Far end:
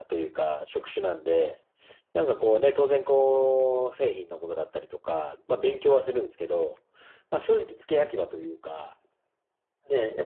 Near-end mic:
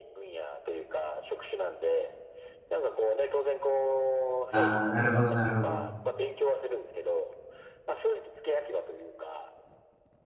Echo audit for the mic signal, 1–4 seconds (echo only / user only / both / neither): echo only